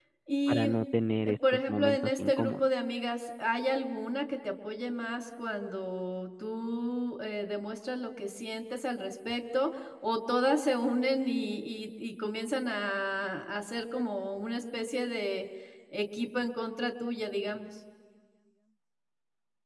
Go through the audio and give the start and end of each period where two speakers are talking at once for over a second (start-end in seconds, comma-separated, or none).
1.3-2.6